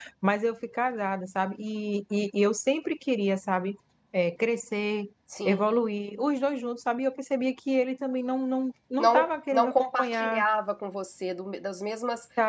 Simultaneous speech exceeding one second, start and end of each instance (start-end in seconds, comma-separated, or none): 9.0-10.4